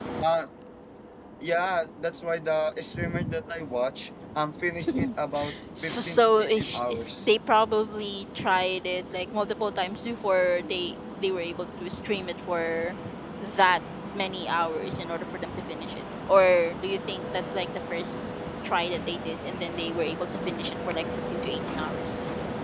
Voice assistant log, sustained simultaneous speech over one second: present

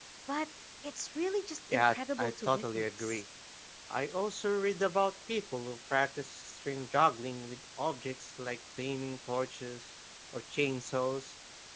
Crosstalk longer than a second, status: present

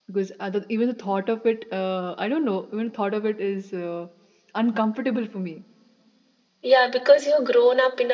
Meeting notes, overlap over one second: none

